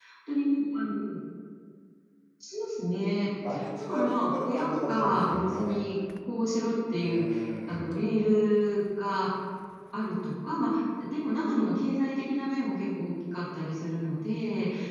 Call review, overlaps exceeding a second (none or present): present